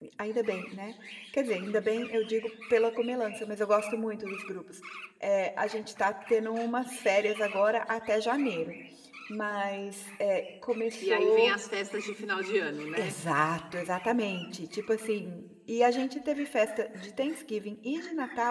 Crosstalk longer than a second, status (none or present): none